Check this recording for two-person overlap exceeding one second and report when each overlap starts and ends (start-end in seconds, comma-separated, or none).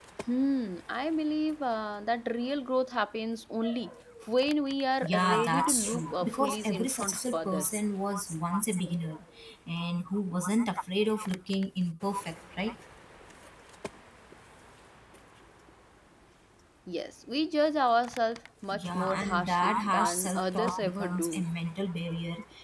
5.0-7.7, 18.7-21.4